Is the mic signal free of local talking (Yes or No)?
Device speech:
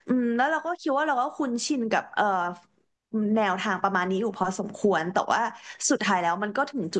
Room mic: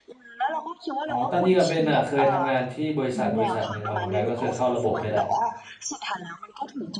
No